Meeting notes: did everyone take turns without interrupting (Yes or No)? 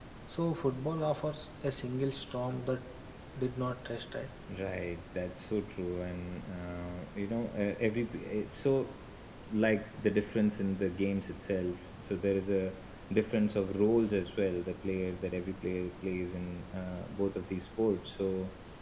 Yes